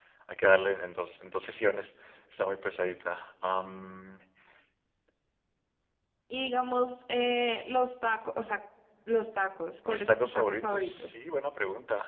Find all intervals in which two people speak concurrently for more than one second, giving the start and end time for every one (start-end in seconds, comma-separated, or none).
9.8-11.1